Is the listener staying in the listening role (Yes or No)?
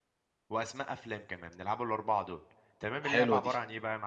Yes